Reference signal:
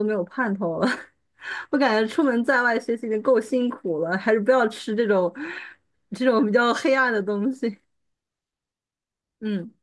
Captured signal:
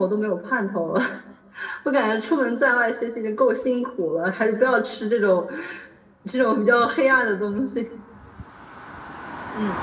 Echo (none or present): present